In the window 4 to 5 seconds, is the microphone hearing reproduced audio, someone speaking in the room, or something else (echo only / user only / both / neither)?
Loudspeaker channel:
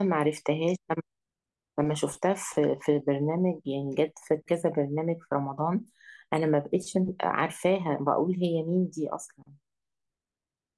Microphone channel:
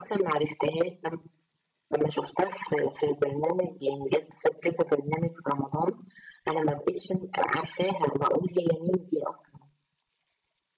echo only